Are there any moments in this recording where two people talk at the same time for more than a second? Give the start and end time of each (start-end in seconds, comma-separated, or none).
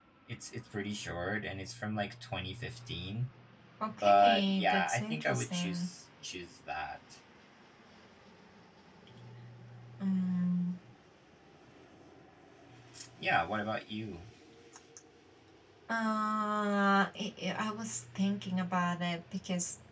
4.0-5.9